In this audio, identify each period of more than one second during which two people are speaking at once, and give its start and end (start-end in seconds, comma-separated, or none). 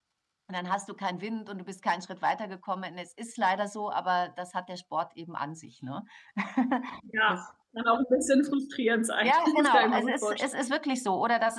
9.2-10.5